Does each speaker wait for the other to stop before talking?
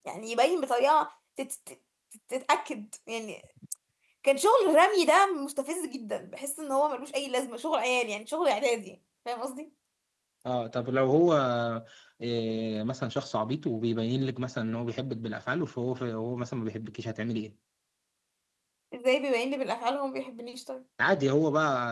Yes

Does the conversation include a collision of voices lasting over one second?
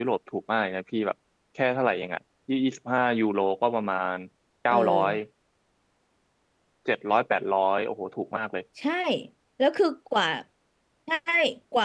No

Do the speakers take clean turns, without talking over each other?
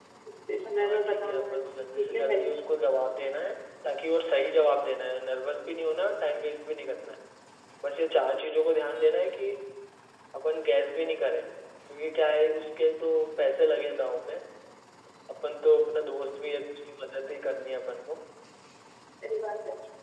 No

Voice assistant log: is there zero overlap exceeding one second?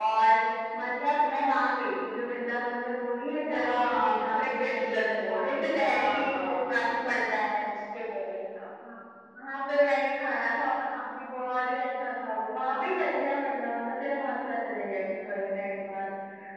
No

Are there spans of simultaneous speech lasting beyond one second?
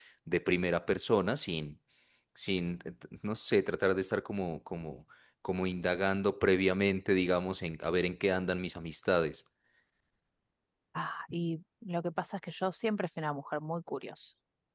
No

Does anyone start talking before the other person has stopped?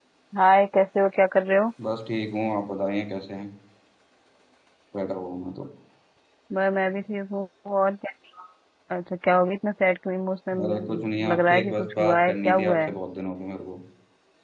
Yes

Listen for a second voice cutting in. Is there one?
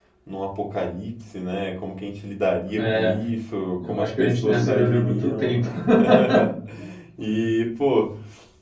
Yes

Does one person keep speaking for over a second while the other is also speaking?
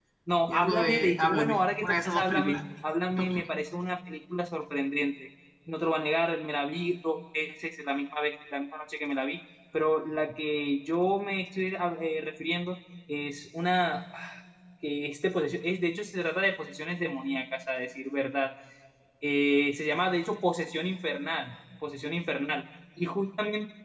Yes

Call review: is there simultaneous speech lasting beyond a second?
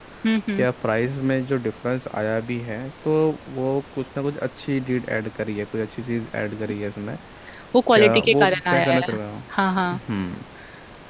Yes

